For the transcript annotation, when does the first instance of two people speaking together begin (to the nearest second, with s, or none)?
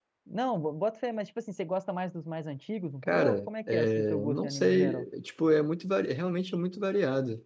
3 s